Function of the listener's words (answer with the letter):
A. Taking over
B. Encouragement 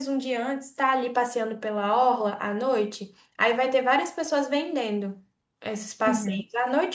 B